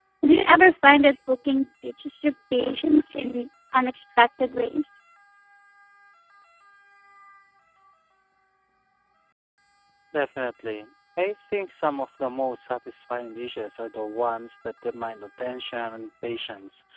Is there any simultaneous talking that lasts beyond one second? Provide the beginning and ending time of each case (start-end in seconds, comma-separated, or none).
none